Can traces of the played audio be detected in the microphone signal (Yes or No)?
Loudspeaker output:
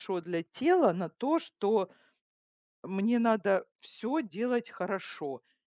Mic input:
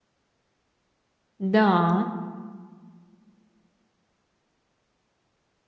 No